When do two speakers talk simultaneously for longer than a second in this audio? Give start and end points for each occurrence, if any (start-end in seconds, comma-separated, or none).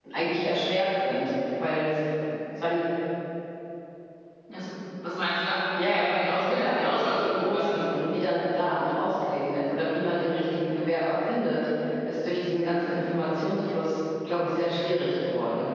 5.8-7.8